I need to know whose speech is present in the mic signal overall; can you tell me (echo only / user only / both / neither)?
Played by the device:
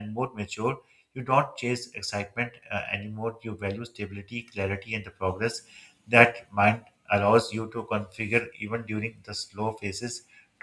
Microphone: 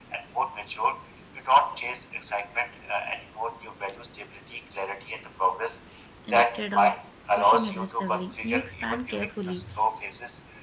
both